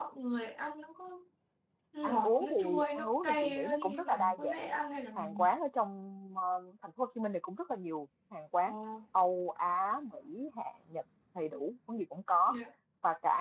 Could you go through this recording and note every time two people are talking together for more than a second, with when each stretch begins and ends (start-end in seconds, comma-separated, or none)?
2.0-4.6